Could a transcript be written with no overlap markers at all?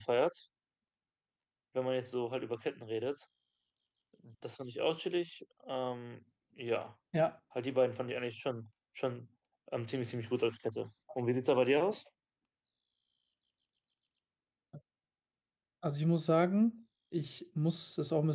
Yes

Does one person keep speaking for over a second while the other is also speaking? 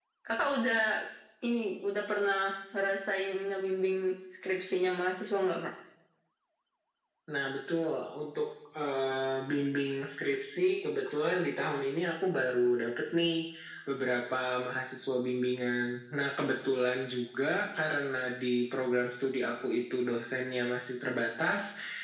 No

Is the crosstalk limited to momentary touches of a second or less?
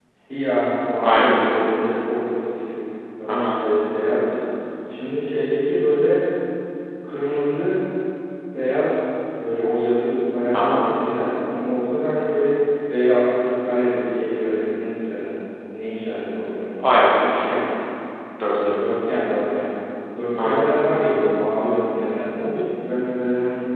Yes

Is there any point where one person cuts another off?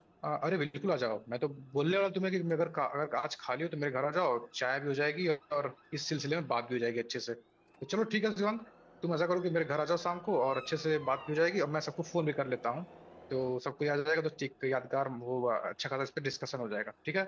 No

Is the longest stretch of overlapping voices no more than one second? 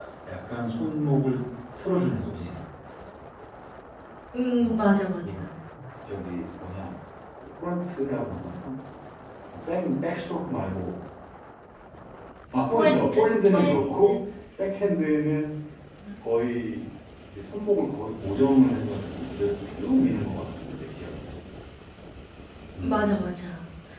No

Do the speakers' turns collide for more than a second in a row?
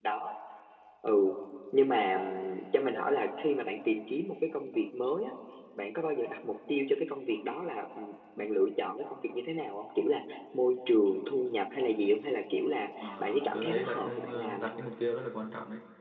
Yes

